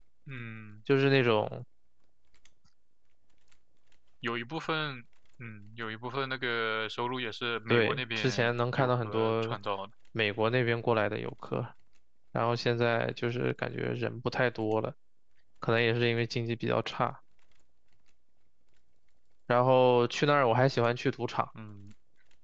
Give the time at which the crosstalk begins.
7.7 s

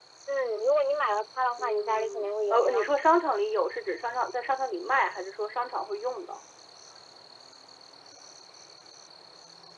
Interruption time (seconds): 1.6 s

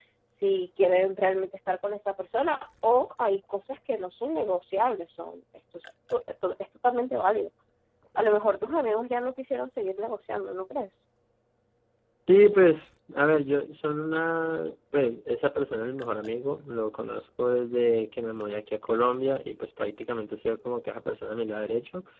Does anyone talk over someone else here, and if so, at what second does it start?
none

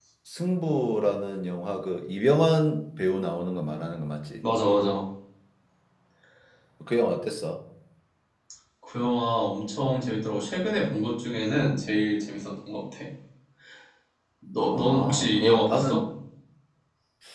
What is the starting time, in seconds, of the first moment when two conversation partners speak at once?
14.7 s

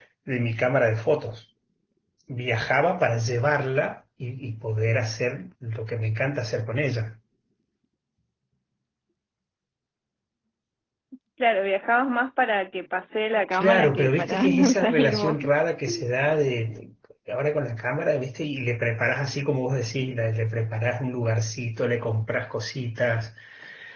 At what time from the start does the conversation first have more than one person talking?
13.5 s

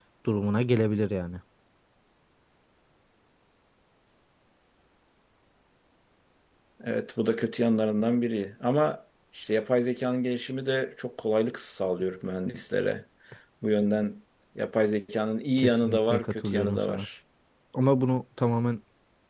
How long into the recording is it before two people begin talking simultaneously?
15.6 s

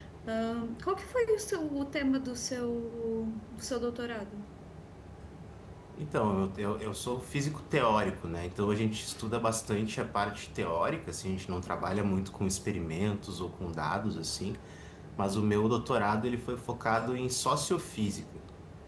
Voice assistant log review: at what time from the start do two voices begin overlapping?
none

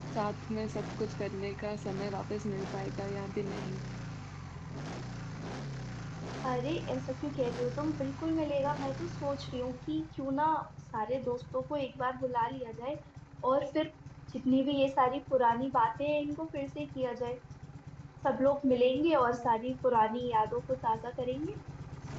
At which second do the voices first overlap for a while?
none

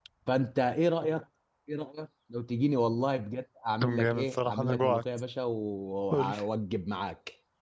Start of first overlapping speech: 3.8 s

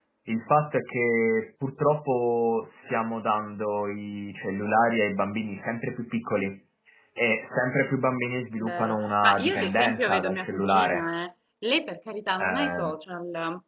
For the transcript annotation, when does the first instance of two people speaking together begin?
8.6 s

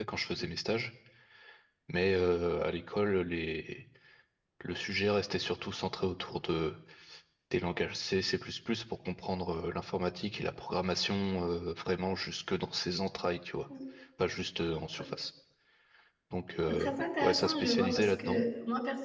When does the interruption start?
16.7 s

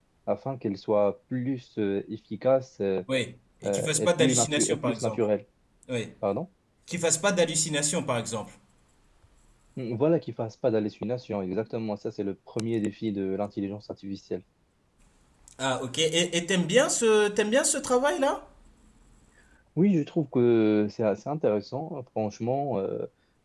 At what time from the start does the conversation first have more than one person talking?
3.6 s

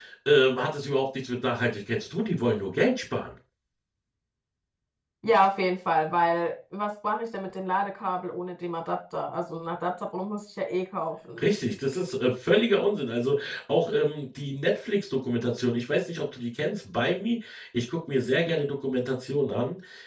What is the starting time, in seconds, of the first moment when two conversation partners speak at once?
none

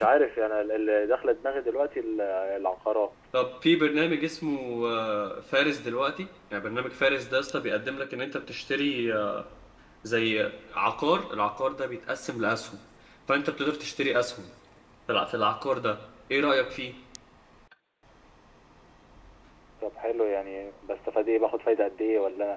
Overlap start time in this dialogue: none

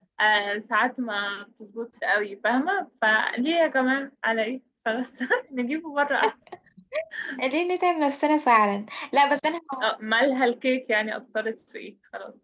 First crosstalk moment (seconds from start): none

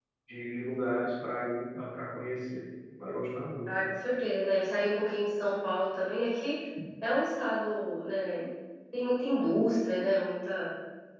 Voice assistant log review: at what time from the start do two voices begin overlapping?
none

